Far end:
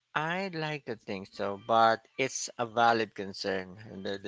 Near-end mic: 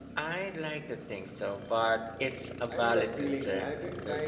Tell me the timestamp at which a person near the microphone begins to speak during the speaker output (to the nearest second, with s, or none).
3 s